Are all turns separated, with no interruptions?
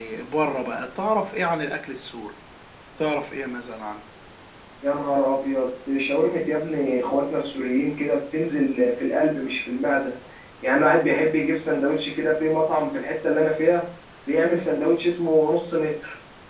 Yes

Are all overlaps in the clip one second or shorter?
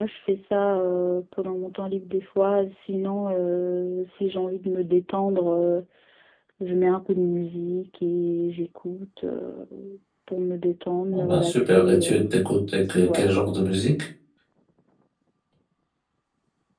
No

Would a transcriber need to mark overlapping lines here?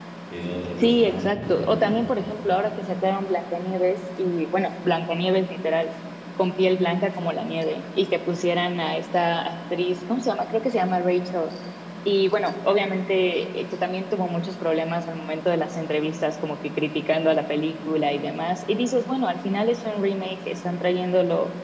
Yes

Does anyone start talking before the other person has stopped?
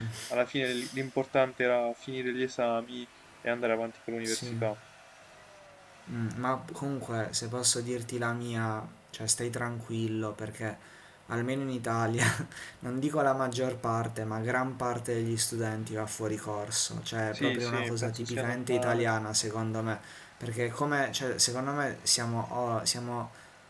Yes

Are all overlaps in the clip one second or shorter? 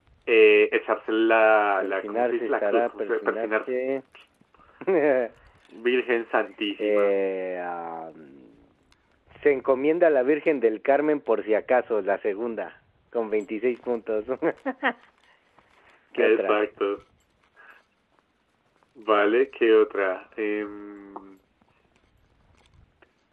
No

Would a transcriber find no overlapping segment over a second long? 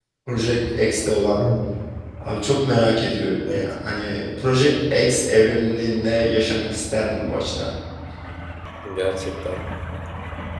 Yes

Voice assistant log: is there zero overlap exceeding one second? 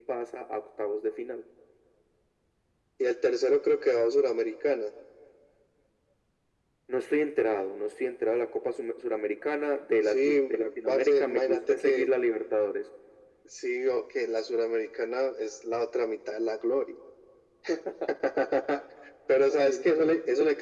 No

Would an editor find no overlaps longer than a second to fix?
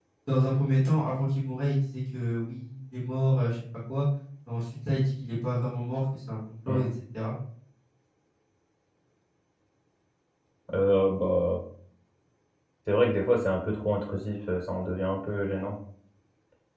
Yes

